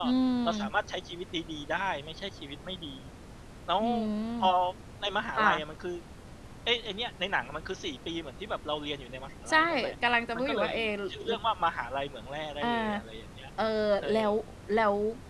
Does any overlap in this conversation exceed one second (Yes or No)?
No